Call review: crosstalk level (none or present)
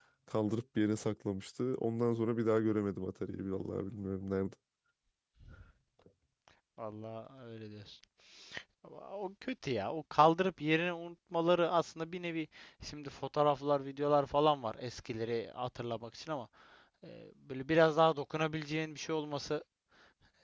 none